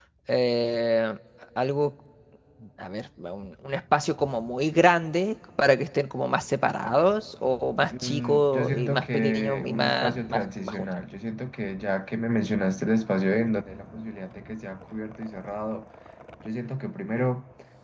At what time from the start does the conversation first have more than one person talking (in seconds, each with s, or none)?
7.9 s